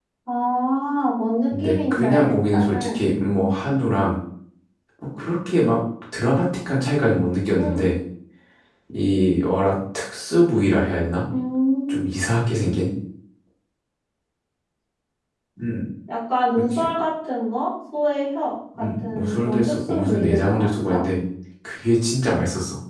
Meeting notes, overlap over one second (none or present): present